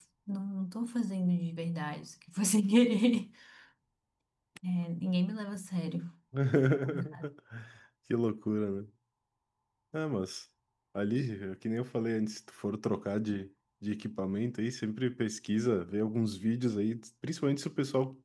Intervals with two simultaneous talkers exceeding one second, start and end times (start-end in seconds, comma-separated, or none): none